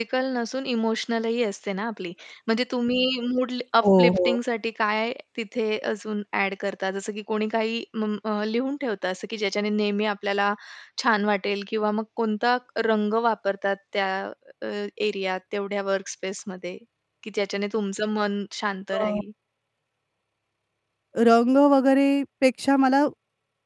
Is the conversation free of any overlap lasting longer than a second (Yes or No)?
Yes